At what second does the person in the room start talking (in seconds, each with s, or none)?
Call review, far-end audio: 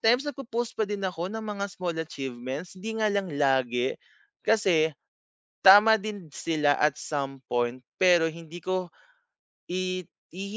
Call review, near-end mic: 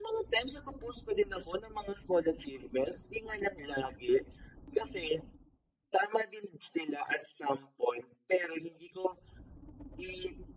none